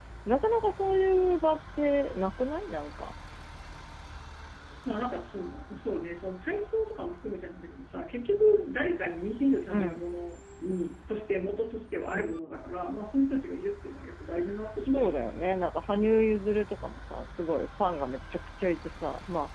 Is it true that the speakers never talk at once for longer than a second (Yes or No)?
Yes